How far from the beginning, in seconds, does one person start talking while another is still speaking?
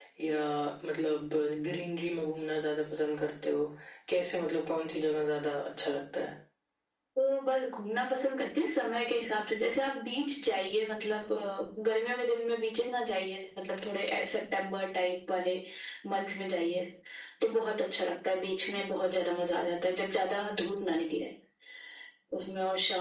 none

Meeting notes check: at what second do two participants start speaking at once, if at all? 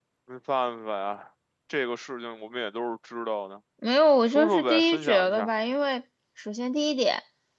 4.3 s

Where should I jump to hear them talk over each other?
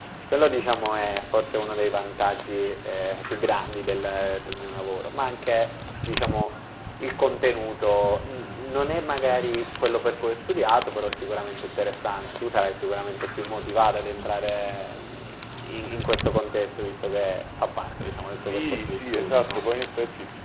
18.1 s

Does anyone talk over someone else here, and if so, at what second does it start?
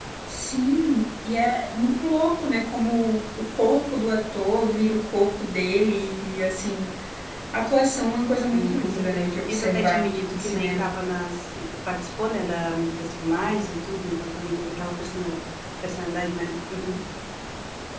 8.5 s

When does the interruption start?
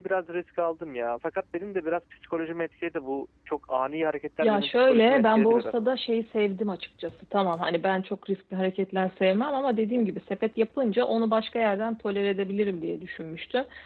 4.4 s

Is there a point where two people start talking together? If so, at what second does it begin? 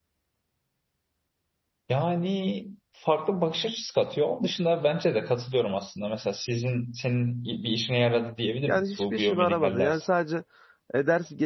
8.7 s

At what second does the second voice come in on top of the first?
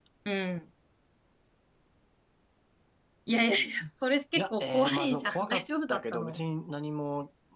4.3 s

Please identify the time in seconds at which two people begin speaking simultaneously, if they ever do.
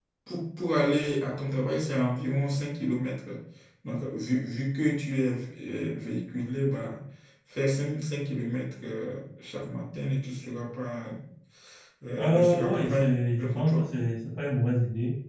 12.2 s

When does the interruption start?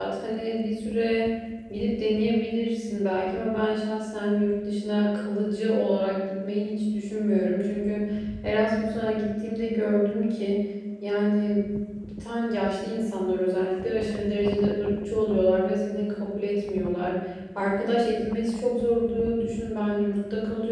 none

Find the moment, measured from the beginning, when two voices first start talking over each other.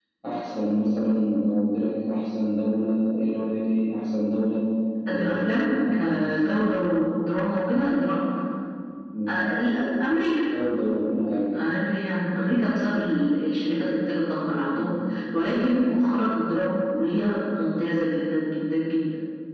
5.1 s

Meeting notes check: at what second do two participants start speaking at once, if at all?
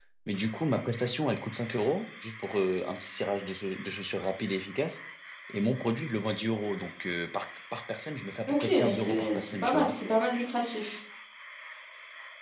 8.5 s

